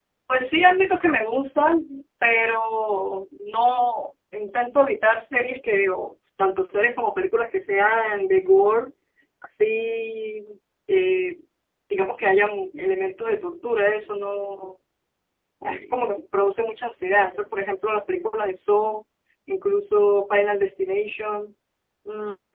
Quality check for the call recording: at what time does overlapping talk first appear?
none

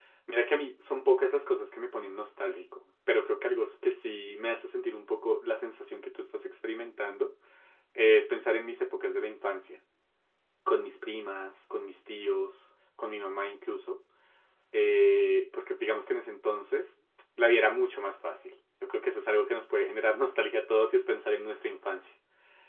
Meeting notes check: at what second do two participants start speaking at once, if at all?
none

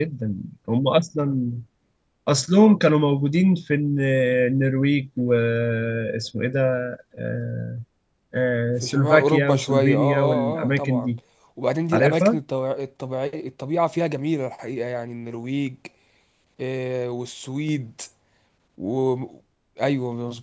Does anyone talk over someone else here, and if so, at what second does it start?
8.8 s

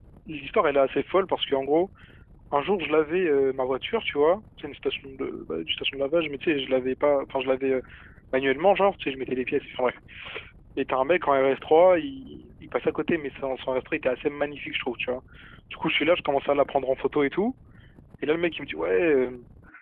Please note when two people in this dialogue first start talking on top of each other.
none

